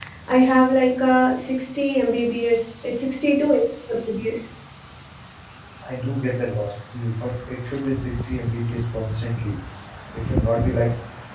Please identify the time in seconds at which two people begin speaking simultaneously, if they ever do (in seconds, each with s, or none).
none